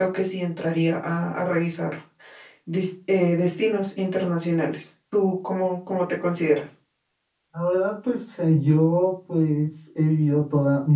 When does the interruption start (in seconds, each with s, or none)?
none